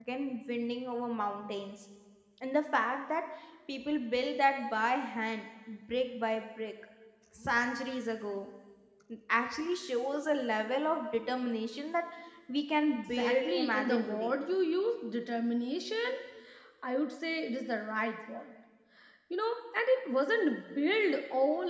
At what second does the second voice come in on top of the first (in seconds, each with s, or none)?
12.9 s